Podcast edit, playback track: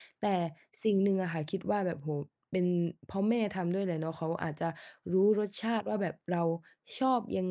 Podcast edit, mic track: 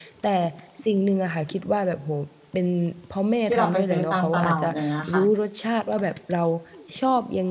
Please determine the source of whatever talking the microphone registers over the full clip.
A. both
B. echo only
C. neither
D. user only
A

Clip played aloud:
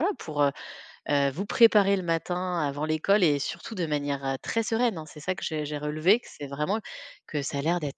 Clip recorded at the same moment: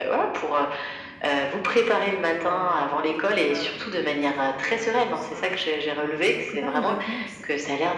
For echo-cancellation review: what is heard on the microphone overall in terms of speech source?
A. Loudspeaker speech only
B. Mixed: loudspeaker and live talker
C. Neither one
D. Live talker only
B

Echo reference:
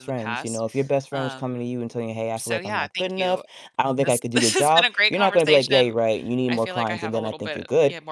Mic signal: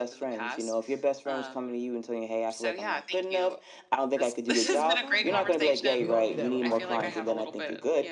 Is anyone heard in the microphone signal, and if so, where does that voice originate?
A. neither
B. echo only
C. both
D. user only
C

